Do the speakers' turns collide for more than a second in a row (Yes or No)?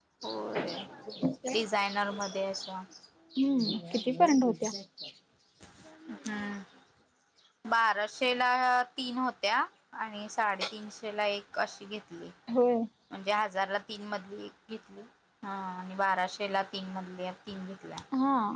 No